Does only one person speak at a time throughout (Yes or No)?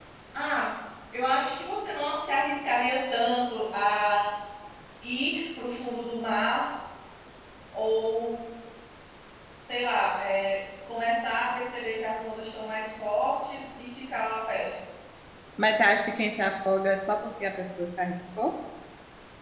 Yes